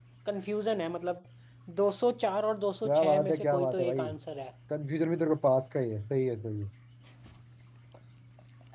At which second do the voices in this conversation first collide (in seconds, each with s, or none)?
2.9 s